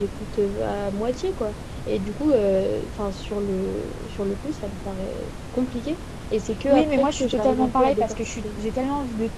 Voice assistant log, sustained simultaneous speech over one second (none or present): present